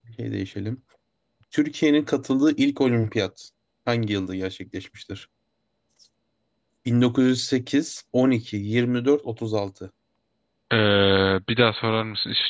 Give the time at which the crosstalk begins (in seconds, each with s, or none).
none